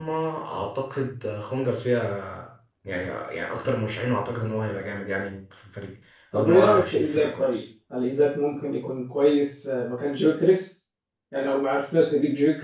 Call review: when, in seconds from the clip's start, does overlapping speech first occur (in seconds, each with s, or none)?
6.3 s